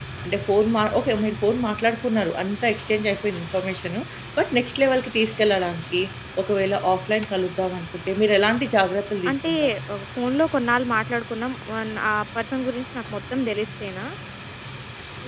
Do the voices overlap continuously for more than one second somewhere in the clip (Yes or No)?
No